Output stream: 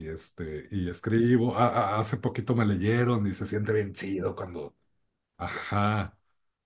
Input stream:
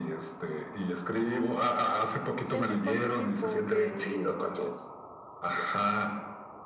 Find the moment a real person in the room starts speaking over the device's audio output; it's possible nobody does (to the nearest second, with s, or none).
2 s